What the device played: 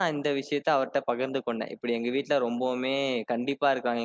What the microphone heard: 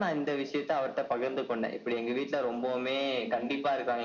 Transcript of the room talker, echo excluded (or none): none